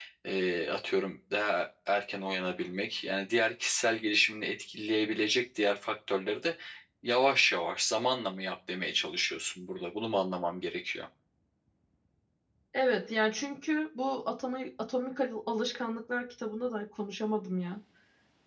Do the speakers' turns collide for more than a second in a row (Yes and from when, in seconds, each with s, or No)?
No